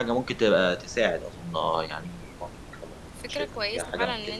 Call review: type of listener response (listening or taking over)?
taking over